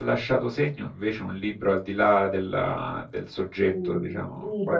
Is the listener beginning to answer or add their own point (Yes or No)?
Yes